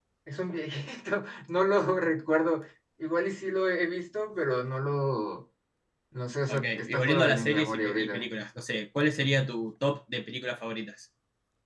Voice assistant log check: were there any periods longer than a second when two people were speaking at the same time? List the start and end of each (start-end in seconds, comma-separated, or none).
6.5-8.2